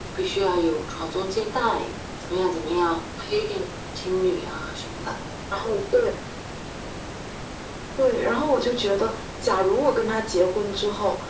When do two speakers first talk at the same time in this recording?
none

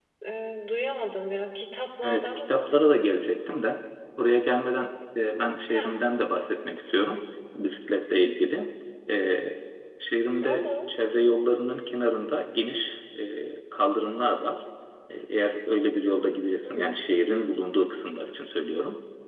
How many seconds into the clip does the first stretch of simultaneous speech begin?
2 s

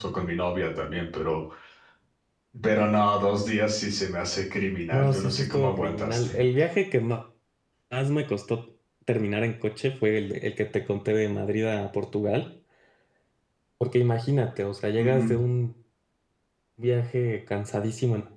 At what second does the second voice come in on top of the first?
5 s

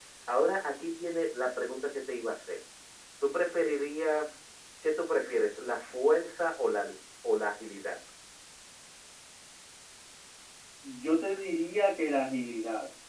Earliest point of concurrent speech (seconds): none

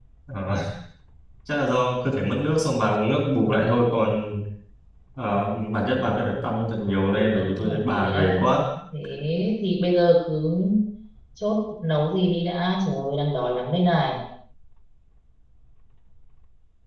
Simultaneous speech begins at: 7 s

